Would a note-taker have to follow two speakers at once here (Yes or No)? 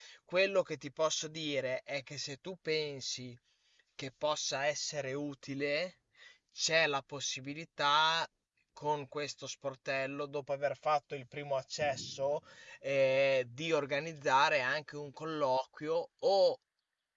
No